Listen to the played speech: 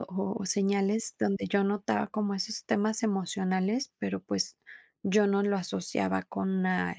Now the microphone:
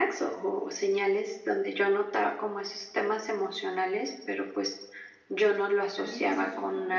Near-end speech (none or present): present